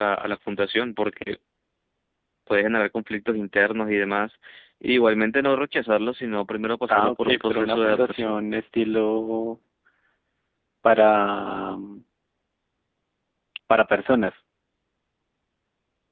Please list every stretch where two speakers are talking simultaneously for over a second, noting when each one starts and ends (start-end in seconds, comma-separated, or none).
6.9-8.4